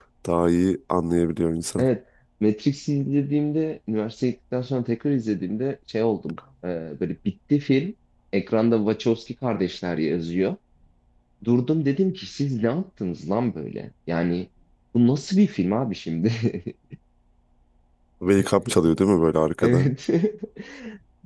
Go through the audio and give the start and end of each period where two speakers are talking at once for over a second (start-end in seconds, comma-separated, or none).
none